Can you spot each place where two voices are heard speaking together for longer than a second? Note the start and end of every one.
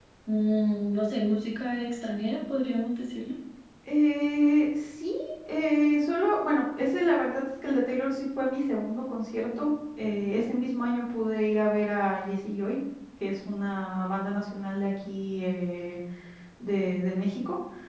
none

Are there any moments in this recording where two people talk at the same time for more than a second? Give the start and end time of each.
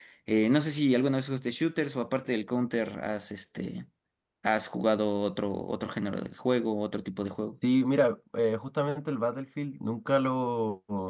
none

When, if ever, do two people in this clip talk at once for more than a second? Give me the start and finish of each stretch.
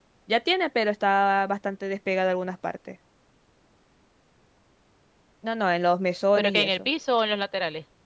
none

